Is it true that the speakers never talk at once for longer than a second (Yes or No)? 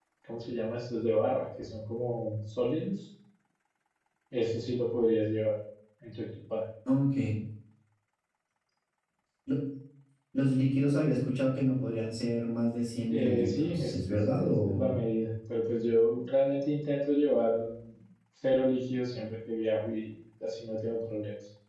No